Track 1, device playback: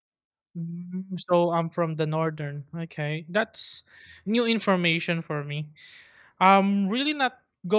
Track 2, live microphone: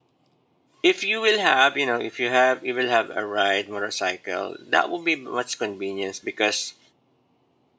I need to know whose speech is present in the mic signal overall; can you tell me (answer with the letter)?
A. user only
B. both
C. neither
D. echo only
A